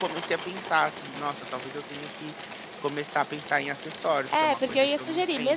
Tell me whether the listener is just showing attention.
No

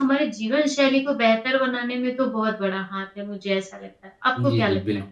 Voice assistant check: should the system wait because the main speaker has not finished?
No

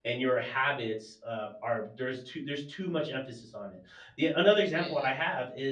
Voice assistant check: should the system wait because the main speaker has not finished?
Yes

